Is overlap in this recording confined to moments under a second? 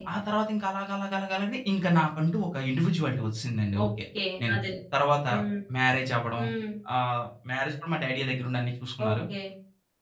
Yes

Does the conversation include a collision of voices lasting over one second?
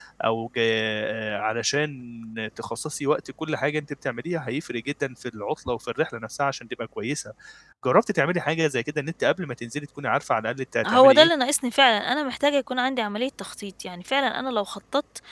No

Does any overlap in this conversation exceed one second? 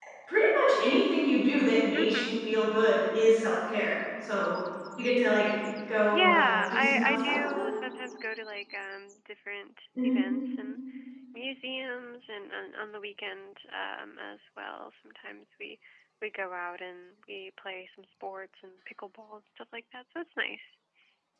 Yes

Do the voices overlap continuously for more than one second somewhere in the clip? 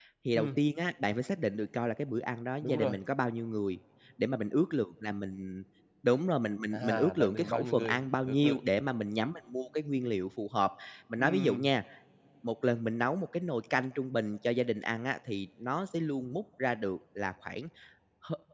Yes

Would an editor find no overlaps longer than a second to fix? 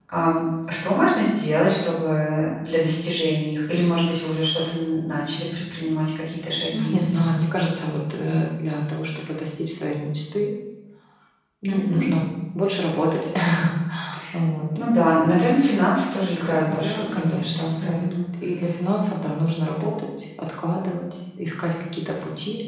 No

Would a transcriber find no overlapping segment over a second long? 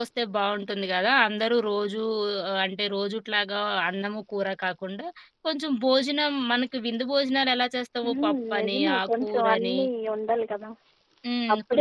No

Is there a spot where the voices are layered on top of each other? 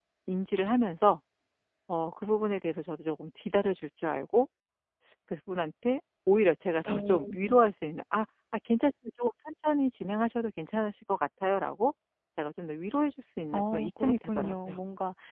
Yes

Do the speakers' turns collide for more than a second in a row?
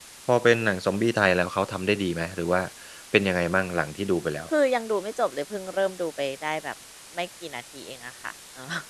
No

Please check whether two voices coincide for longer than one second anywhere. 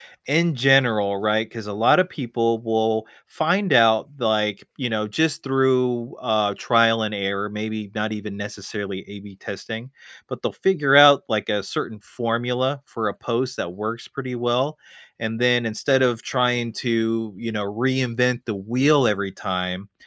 No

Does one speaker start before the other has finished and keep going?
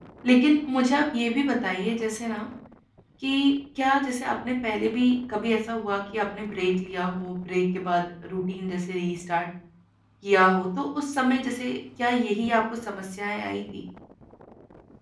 No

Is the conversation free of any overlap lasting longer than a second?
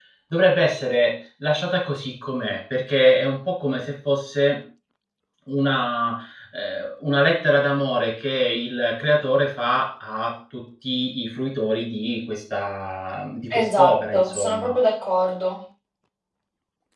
No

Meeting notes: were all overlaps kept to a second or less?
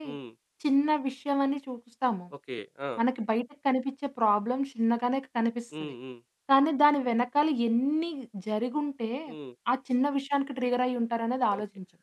Yes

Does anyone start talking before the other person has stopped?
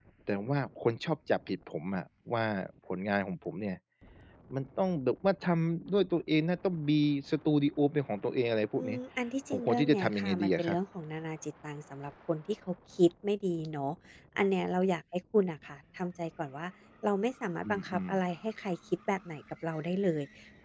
Yes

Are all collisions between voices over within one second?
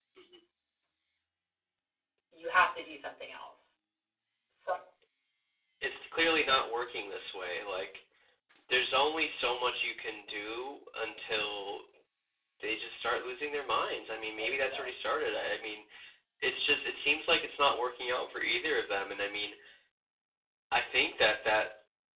Yes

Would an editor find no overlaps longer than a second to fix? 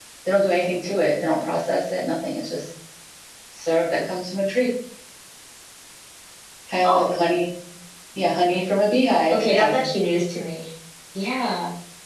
Yes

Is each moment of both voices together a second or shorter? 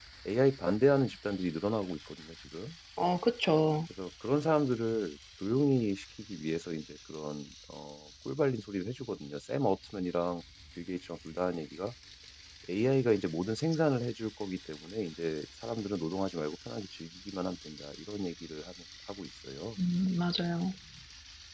Yes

